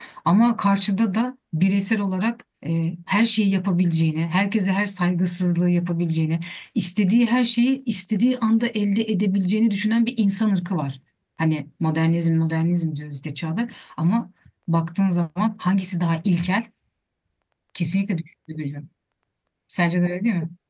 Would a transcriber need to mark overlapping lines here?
No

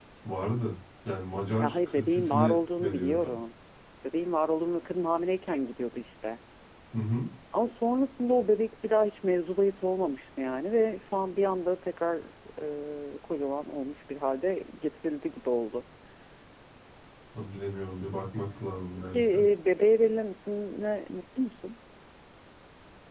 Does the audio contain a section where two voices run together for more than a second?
Yes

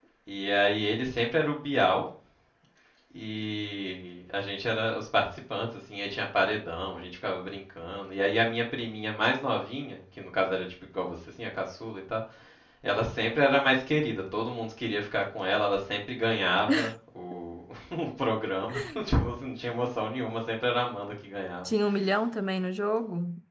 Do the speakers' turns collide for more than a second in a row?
No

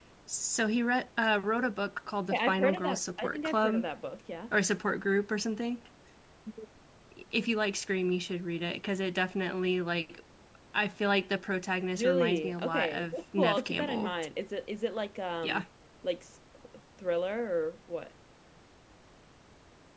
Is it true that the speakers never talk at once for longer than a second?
No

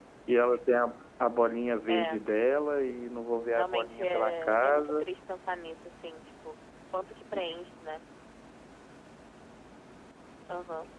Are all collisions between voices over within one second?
No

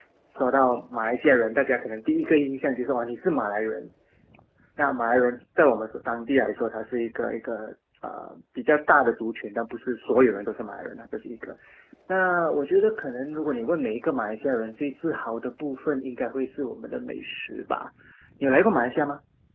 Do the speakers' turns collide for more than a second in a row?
No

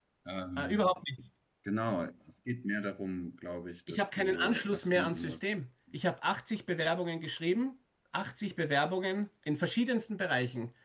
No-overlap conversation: No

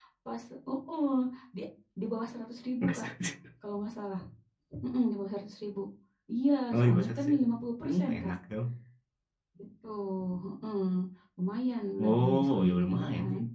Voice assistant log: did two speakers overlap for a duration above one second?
Yes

